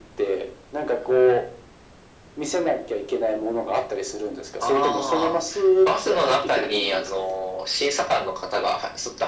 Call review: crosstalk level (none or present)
present